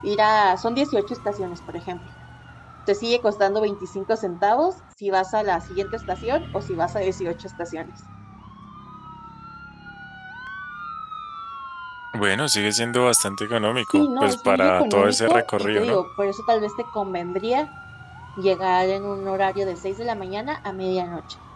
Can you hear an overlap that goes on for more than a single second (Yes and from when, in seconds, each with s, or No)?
Yes, from 13.9 s